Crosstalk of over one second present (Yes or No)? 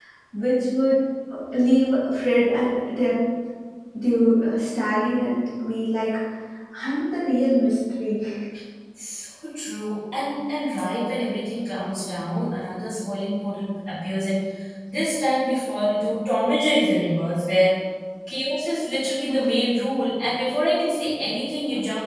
No